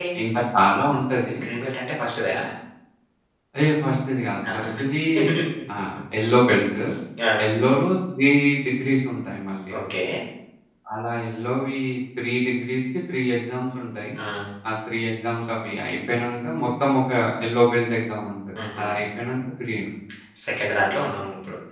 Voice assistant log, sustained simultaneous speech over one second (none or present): none